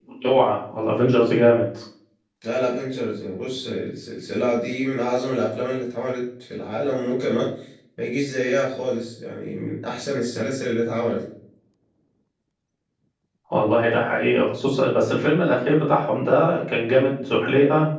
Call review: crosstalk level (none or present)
none